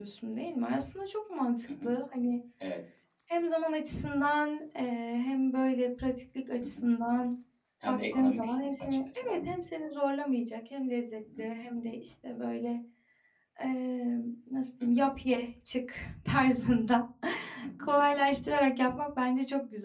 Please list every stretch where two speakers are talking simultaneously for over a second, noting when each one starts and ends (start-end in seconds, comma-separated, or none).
7.8-9.5